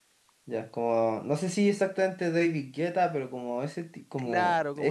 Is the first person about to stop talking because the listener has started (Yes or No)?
Yes